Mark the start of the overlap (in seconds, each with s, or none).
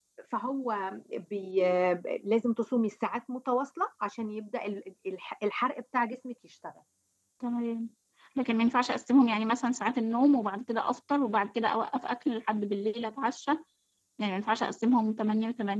none